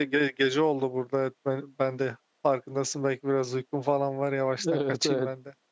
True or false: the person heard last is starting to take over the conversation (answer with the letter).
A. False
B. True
B